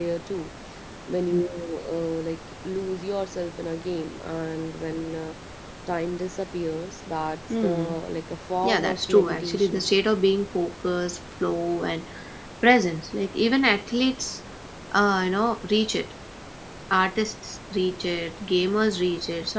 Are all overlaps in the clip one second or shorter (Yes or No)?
No